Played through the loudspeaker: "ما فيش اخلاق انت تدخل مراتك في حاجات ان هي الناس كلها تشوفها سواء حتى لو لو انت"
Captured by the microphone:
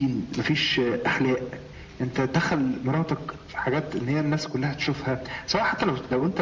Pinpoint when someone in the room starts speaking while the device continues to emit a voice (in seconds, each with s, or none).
none